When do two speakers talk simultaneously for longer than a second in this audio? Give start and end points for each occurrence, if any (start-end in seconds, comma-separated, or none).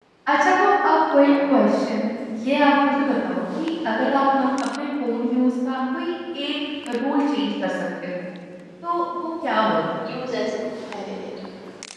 none